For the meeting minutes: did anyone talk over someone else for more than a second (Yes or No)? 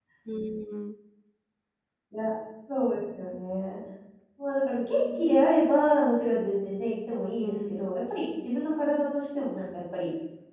No